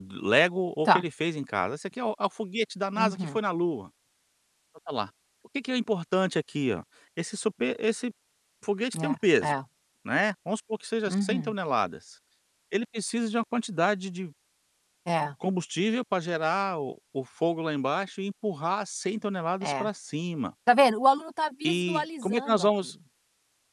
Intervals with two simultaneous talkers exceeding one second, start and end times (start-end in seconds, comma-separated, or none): 21.6-22.9